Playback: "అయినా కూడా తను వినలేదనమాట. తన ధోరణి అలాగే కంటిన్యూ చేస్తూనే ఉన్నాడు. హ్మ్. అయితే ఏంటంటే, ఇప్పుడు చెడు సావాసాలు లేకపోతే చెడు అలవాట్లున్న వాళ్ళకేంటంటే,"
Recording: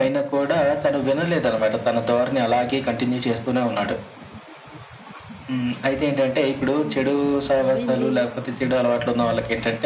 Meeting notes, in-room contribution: present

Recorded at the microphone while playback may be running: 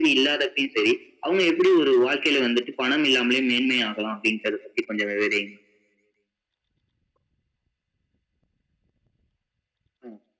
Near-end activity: none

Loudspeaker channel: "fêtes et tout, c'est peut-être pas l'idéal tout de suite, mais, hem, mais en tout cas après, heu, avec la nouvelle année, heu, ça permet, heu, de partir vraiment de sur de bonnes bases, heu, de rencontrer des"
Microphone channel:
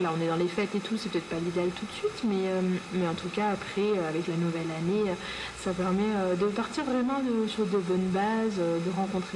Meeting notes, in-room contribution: none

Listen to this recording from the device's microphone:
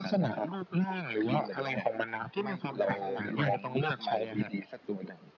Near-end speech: present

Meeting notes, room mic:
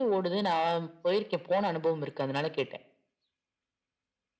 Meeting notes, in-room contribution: none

